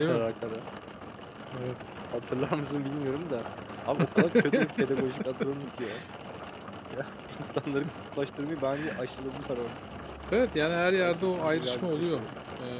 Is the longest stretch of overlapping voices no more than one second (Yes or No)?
No